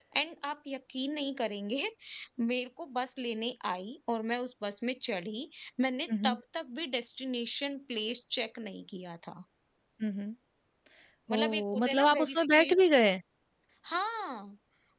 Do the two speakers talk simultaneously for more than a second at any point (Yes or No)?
Yes